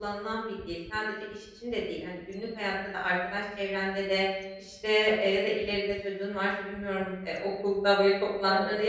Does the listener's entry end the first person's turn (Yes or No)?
No